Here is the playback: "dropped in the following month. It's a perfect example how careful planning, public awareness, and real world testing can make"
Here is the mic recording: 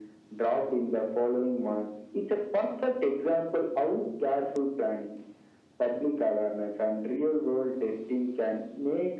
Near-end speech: none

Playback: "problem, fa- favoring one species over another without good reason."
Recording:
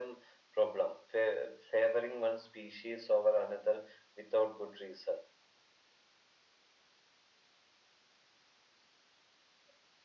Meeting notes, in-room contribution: none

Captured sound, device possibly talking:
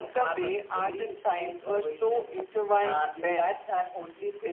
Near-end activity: none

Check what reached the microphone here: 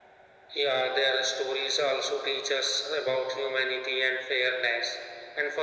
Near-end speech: none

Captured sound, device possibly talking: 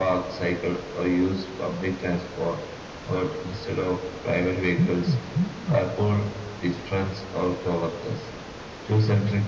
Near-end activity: none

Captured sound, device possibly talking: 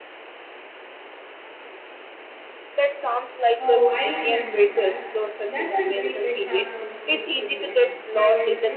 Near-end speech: present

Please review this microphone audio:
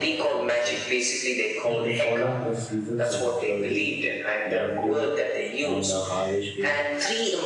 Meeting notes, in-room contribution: present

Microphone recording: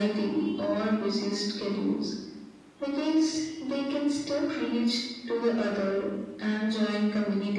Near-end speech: none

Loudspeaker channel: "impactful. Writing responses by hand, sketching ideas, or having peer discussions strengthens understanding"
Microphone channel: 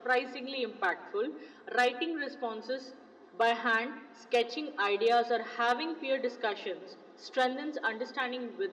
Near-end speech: none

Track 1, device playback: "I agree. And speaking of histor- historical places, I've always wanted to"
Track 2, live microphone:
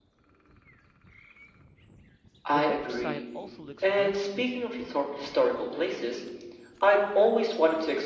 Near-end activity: present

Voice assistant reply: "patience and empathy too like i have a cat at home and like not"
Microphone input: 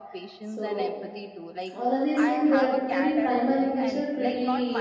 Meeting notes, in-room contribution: present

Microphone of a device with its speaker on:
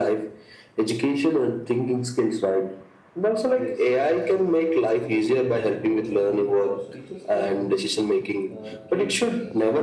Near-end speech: present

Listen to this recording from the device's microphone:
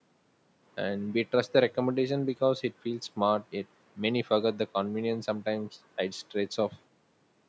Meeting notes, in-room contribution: present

